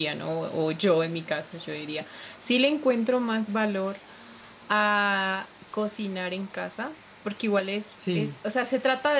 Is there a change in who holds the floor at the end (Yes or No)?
No